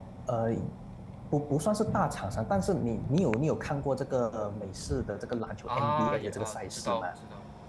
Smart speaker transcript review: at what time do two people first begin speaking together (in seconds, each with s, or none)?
5.7 s